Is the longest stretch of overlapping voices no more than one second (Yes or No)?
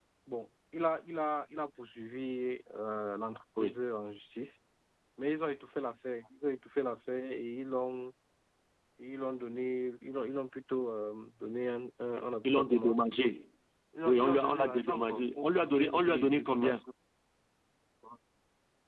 No